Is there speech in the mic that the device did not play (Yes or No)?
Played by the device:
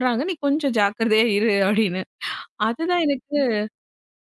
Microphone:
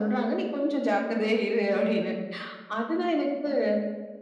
No